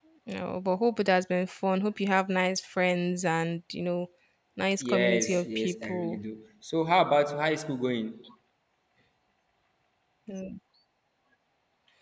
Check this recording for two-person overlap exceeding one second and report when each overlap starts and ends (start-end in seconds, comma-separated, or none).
4.8-6.2